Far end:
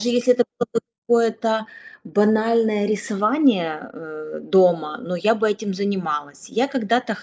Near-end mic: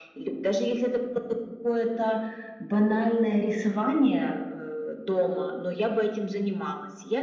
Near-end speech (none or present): none